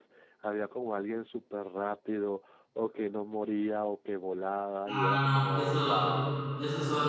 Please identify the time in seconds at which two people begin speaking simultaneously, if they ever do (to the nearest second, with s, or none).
5 s